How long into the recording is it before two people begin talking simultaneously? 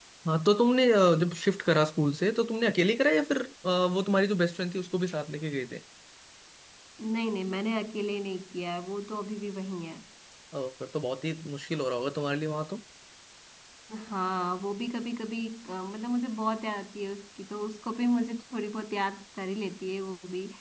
none

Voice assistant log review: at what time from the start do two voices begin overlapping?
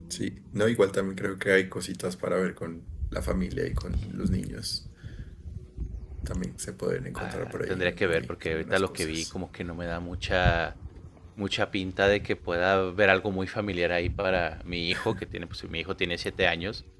7 s

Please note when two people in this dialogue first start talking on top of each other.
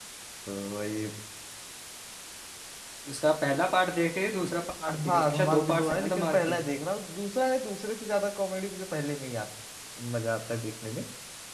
5 s

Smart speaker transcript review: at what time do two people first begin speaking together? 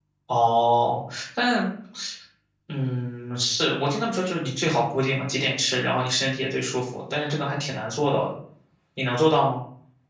none

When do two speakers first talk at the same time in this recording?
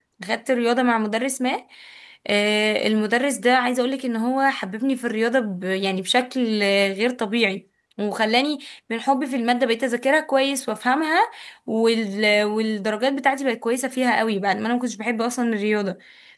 none

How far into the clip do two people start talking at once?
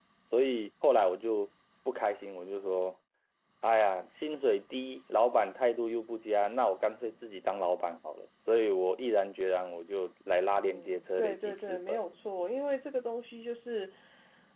11 s

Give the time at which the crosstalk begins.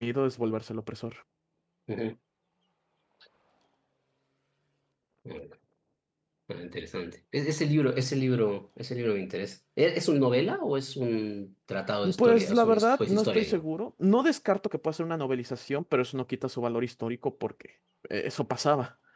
12 s

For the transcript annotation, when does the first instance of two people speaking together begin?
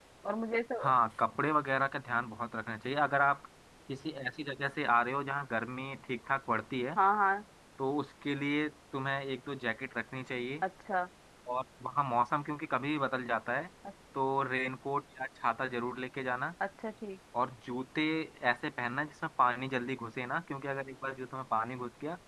none

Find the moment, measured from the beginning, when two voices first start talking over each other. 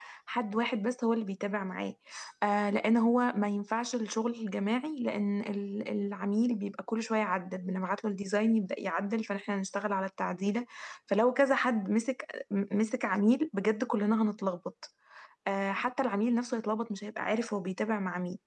none

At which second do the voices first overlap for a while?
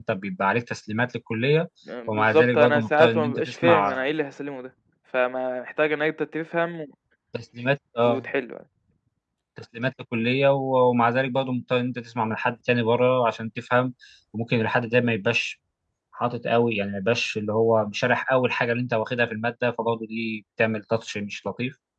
2 s

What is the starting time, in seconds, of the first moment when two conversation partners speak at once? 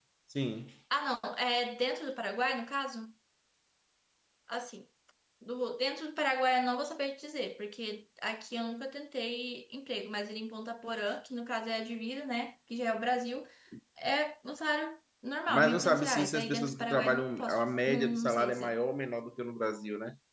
15 s

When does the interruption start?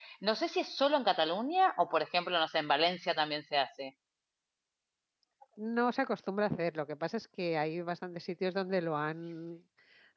none

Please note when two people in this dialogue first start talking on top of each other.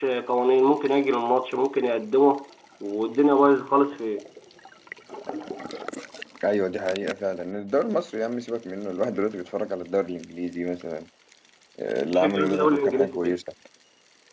12 s

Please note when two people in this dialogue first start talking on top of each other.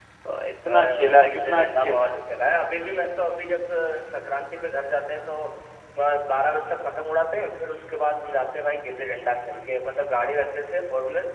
1 s

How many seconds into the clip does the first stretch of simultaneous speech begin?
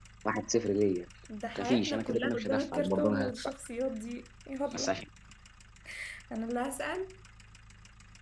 2 s

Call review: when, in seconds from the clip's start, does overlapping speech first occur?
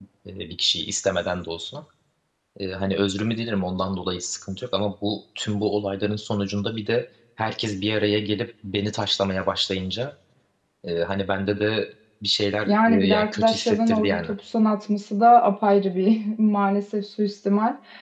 13 s

